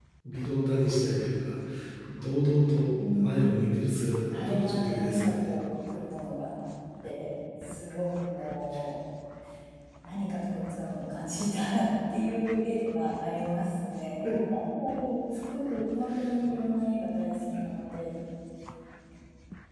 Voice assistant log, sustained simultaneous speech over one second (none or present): present